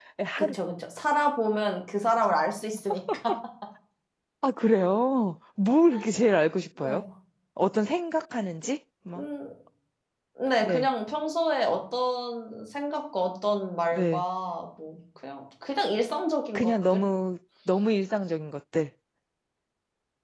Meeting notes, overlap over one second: none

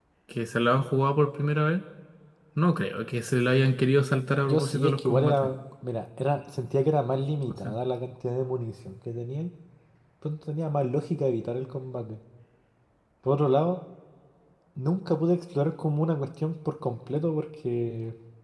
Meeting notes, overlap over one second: present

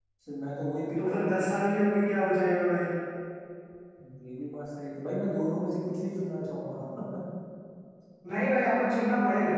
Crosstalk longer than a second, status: none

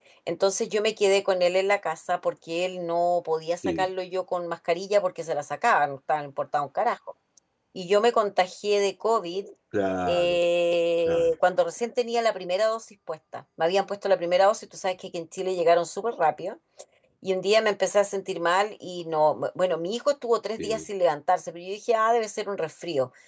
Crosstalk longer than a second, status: none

